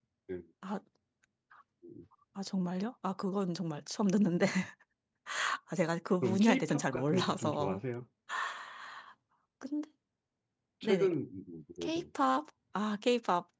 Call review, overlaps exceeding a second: present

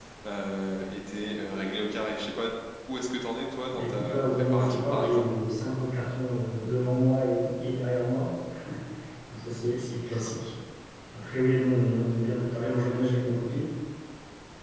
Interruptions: present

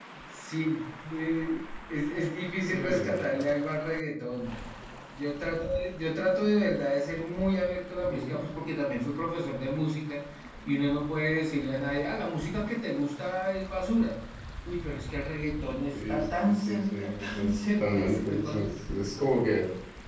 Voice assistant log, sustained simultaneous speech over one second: present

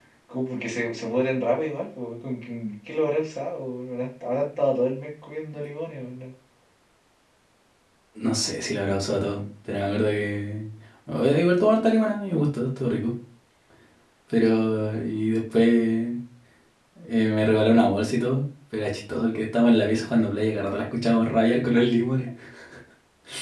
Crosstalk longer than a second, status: none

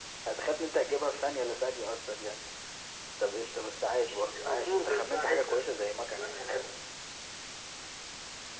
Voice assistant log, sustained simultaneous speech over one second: present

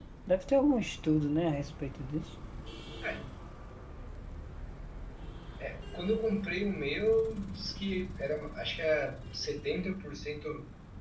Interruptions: none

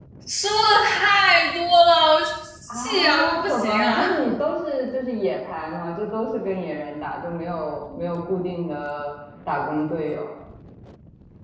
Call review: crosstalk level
present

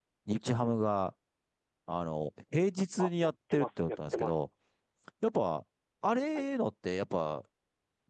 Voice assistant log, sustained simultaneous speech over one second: present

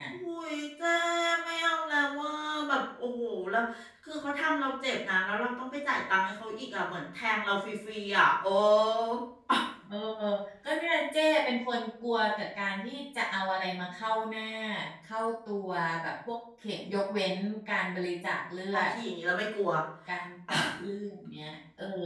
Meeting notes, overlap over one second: none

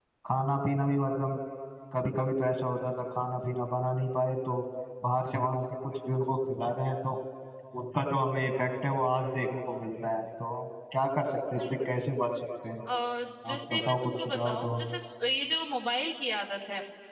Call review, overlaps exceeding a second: present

